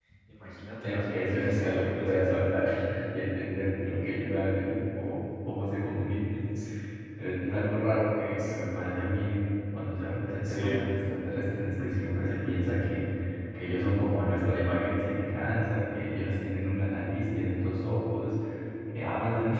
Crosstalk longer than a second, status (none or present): present